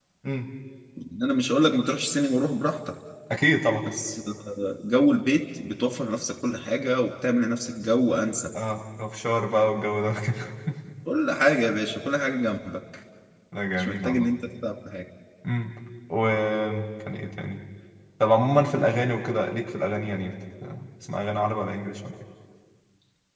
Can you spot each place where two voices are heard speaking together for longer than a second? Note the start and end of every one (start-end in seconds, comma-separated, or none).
none